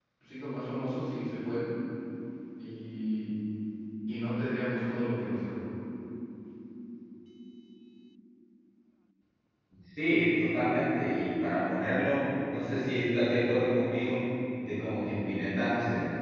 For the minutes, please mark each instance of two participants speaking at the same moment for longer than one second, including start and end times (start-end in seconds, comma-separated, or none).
none